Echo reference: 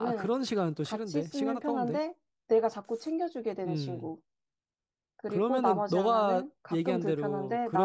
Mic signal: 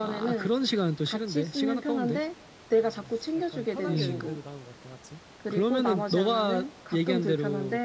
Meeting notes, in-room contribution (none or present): present